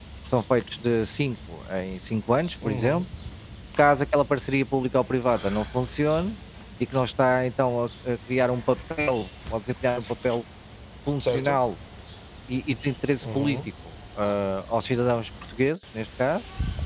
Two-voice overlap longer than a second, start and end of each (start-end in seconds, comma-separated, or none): none